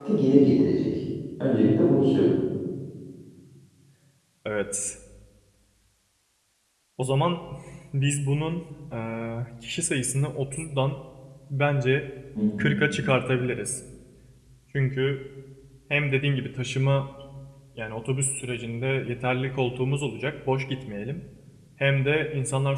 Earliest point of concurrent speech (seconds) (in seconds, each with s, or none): none